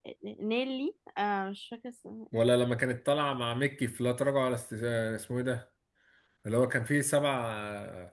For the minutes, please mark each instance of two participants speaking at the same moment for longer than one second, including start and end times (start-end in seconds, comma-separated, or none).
none